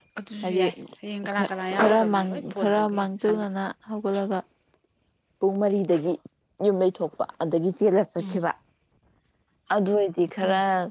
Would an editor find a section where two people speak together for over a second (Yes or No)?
Yes